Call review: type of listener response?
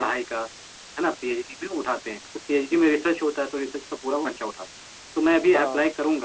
listening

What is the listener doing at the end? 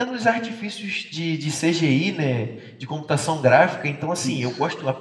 listening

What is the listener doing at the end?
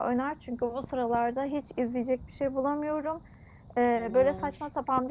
listening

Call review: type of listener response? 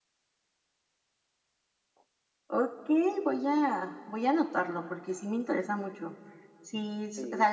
listening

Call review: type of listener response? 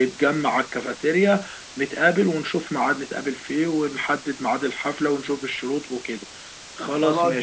taking over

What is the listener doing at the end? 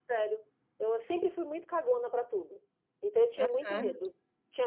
listening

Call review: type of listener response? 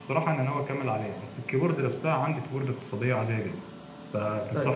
listening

